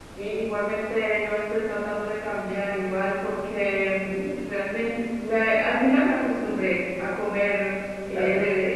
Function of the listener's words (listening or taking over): listening